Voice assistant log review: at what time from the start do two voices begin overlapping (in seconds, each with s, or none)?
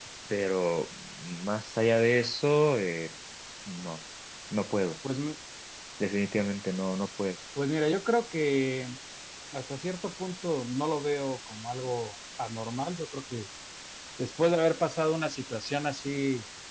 none